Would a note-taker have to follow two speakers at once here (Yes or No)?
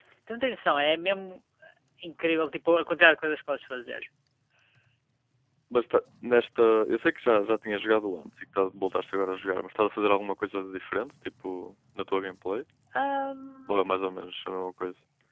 No